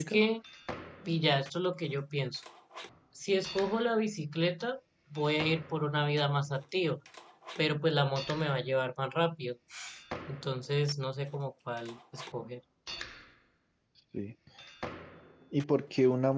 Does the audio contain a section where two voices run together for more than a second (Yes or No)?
No